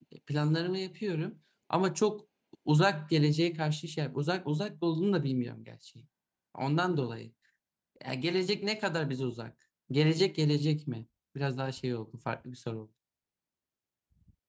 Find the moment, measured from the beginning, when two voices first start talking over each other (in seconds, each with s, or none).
none